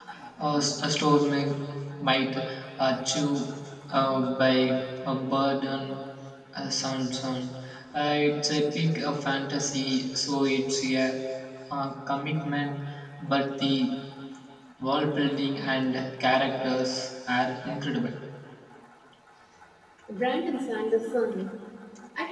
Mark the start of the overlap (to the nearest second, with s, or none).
none